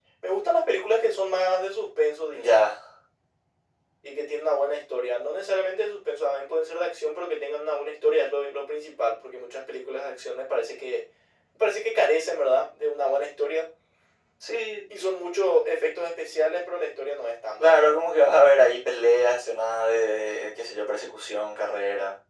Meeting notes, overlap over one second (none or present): none